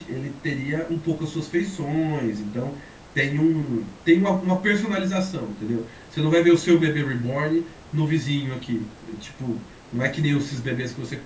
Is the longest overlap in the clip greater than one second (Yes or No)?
No